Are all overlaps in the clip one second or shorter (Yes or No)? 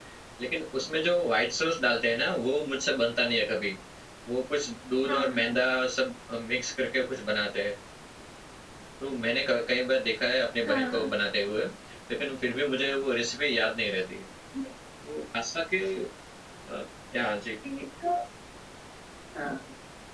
Yes